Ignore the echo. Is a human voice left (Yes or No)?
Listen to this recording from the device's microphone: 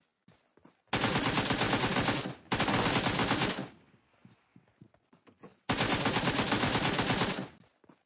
No